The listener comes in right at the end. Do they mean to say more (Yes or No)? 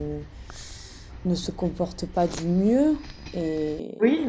No